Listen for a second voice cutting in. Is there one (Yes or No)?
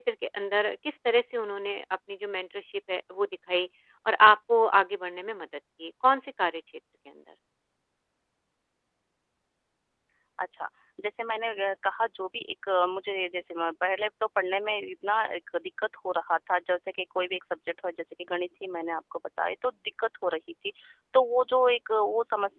No